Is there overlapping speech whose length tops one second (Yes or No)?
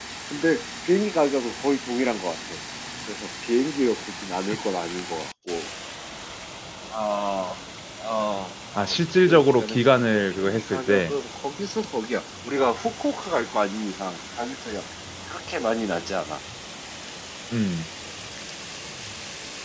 Yes